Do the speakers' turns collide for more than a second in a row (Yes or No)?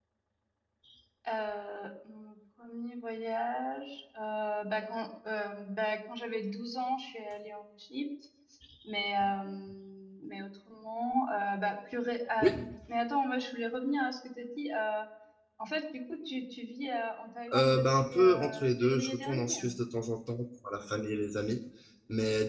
Yes